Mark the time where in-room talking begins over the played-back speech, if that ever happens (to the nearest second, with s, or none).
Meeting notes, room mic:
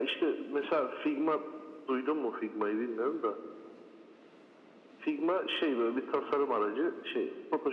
none